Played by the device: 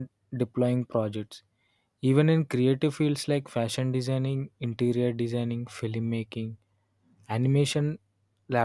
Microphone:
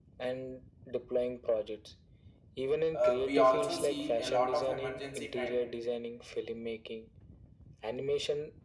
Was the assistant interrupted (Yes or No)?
Yes